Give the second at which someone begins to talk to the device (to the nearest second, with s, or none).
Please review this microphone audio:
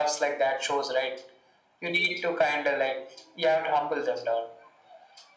none